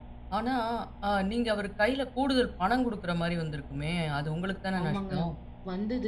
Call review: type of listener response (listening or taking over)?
taking over